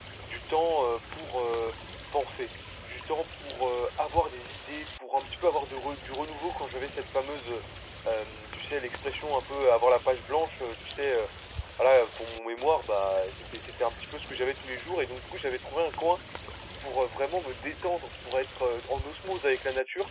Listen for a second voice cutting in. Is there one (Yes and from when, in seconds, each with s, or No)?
No